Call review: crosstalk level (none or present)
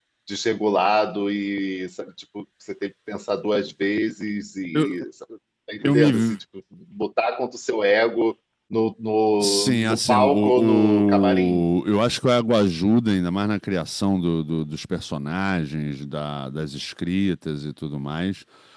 present